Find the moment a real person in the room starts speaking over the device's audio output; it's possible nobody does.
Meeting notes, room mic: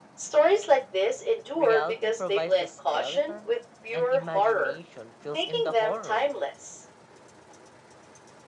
1.5 s

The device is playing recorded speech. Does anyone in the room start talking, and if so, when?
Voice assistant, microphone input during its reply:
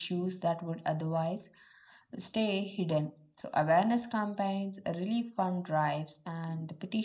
none

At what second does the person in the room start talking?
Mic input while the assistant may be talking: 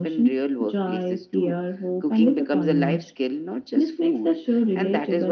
none

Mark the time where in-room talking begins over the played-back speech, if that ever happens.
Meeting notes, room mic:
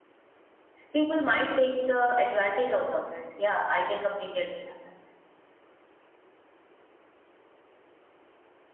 0.9 s

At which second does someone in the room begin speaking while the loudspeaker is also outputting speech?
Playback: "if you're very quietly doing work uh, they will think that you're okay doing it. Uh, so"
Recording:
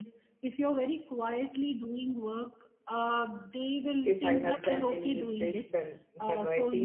4.0 s

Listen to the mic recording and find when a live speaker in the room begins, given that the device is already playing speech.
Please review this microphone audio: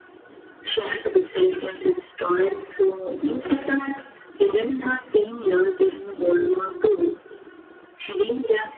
none

